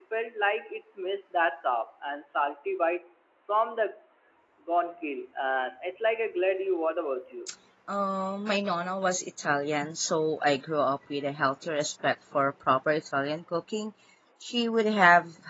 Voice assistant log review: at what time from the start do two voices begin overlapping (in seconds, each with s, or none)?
none